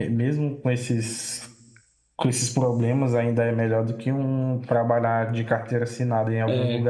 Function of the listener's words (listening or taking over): taking over